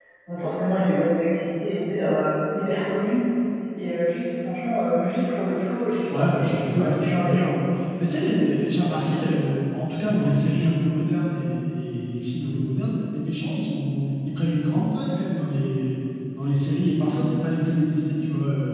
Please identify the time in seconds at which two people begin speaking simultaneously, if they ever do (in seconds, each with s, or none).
6.1 s